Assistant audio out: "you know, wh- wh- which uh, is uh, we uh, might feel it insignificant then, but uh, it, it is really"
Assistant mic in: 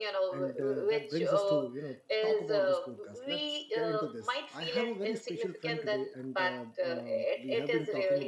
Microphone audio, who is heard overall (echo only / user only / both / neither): both